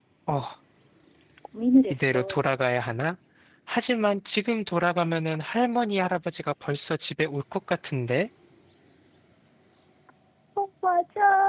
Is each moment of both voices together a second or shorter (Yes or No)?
Yes